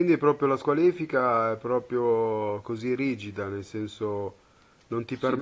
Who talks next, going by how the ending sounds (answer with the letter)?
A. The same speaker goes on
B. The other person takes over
B